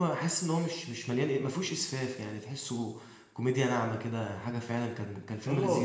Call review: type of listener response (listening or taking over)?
taking over